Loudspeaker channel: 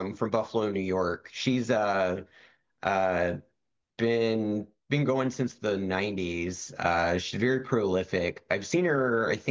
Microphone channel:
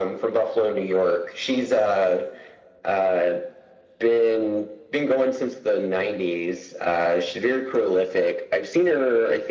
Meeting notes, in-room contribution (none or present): none